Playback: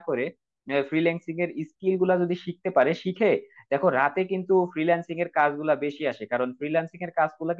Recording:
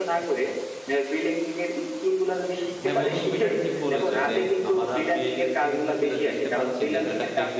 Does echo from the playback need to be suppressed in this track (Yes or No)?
Yes